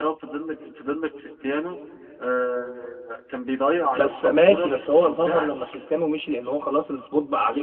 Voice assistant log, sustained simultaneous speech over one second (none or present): present